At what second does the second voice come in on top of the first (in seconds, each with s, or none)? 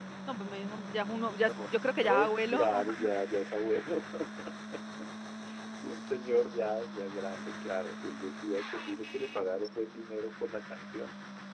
1.4 s